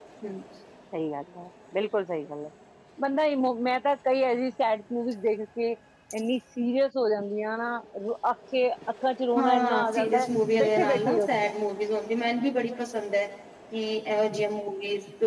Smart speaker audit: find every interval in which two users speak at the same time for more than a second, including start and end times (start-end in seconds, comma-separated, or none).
9.3-11.5